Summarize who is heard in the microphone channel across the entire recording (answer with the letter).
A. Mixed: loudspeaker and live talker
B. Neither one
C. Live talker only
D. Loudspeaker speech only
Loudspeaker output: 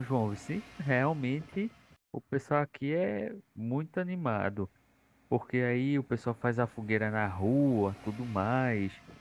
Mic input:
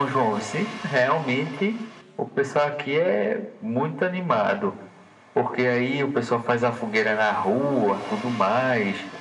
D